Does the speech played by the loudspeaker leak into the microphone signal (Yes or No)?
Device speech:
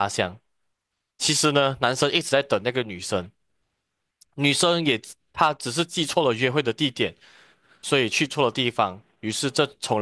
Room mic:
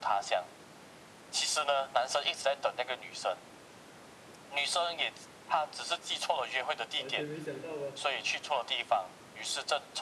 Yes